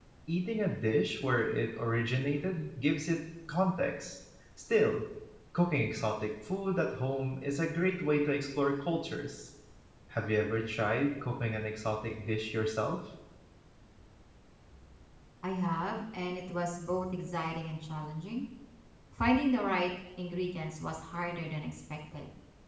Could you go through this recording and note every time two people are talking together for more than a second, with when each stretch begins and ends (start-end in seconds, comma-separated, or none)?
none